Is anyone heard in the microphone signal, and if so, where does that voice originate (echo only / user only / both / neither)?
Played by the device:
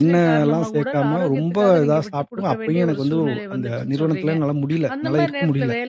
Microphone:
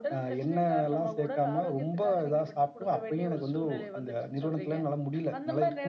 echo only